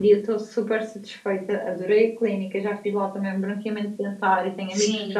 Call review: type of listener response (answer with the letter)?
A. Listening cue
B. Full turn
A